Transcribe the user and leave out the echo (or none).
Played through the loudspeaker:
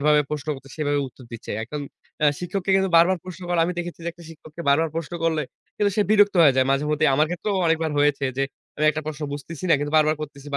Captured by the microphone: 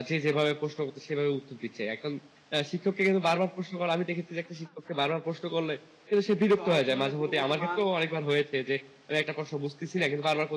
শহরের তুলনায় গুণগত মান